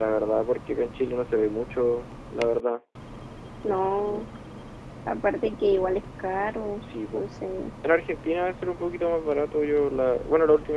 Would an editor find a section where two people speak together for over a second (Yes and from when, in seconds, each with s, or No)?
No